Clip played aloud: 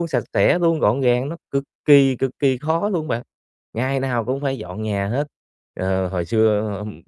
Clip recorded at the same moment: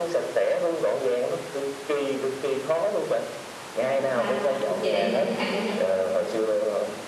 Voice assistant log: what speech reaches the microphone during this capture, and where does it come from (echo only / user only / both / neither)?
both